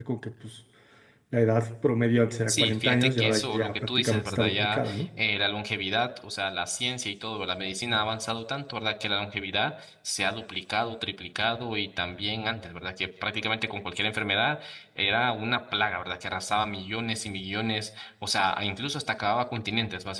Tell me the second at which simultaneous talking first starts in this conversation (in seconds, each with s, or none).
2.5 s